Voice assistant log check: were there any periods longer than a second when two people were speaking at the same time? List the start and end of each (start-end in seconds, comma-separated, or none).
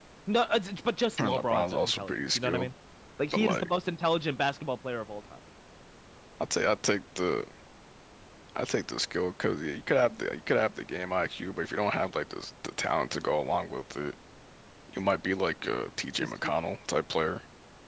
1.2-2.7